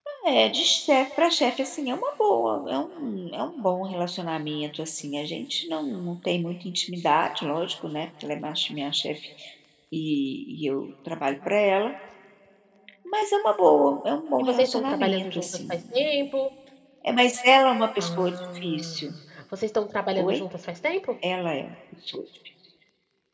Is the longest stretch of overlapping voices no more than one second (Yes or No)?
No